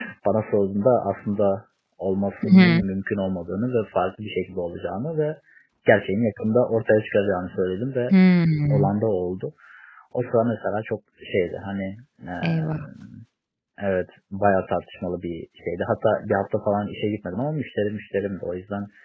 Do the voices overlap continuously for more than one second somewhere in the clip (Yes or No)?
No